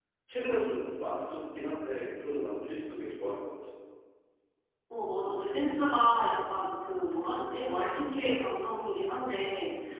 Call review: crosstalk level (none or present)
none